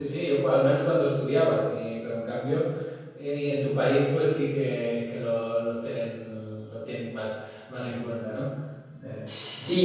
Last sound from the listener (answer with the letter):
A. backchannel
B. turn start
B